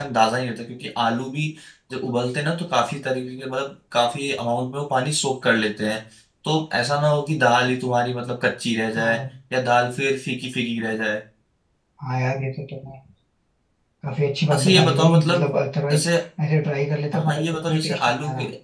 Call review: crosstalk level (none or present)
present